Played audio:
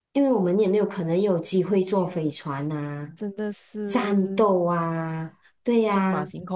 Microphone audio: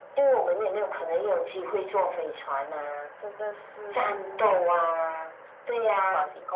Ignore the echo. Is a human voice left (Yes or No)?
No